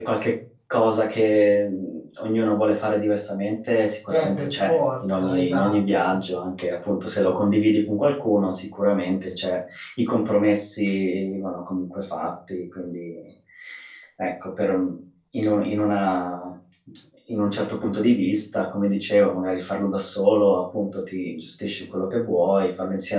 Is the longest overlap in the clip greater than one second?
Yes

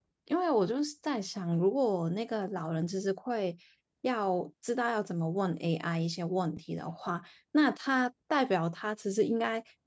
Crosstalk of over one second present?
No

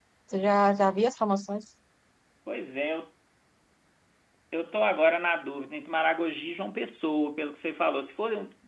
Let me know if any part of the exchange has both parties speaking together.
No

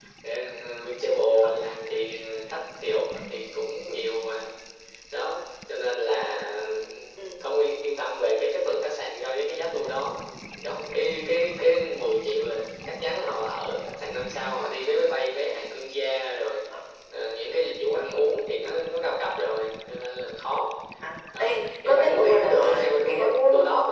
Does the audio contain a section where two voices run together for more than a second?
Yes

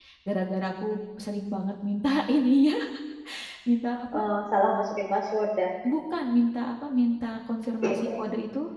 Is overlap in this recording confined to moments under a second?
Yes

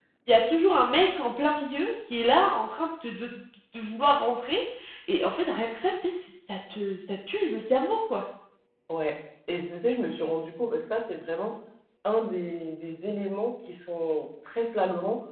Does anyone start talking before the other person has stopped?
No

